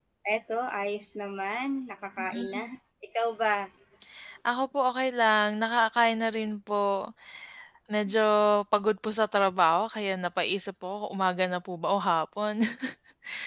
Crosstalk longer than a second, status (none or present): none